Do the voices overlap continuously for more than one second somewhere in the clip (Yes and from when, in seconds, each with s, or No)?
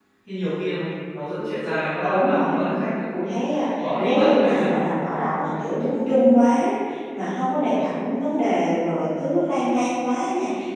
Yes, from 2.0 s